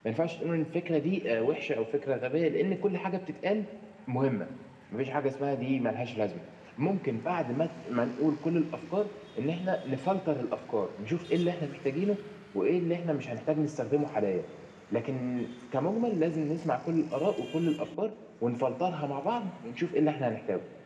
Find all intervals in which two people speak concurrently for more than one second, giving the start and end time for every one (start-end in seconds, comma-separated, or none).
none